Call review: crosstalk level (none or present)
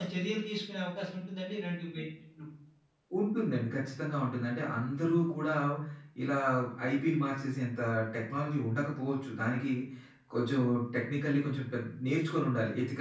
none